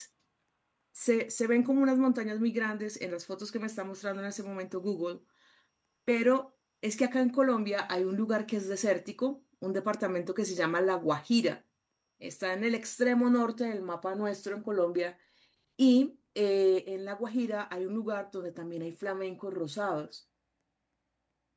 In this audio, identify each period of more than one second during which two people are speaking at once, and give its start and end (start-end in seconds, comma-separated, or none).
none